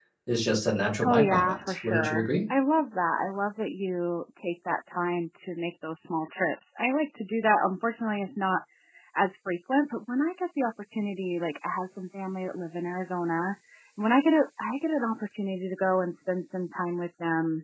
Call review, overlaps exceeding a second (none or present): present